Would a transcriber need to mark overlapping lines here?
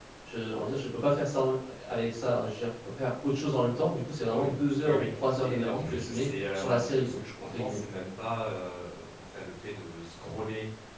Yes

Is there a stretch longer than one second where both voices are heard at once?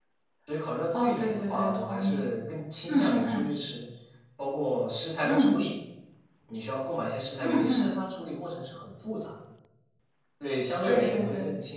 Yes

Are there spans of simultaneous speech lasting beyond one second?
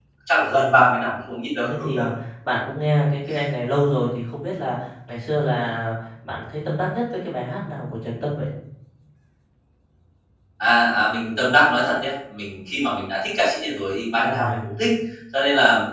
No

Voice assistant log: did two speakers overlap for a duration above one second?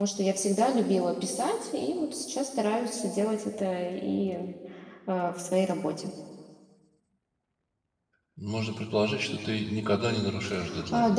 No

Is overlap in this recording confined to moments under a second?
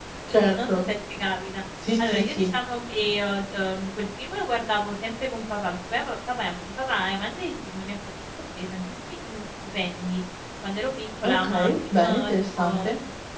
No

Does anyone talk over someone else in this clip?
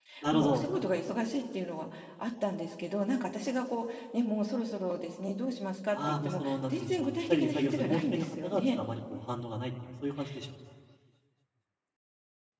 Yes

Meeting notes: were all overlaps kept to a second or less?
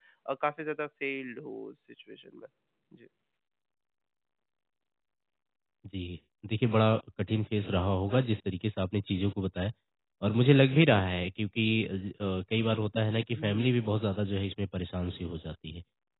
Yes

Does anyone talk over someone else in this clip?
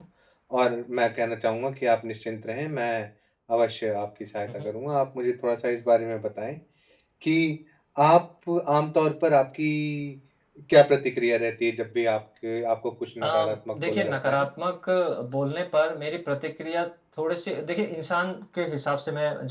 Yes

